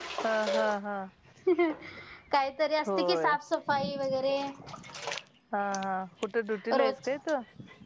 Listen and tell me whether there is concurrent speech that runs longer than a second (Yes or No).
No